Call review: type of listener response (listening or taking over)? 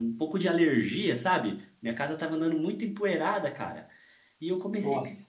listening